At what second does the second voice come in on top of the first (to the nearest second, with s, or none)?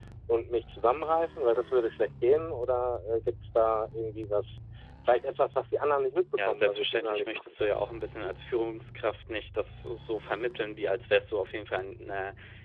6 s